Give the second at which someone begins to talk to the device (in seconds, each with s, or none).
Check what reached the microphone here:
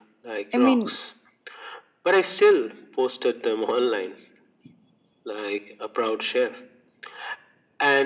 0.5 s